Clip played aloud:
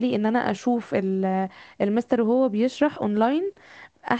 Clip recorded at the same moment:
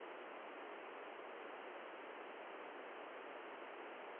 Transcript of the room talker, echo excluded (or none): none